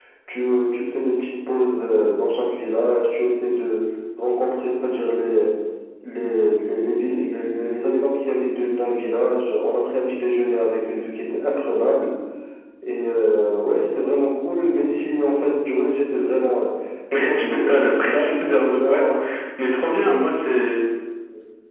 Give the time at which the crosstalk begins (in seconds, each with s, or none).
17.2 s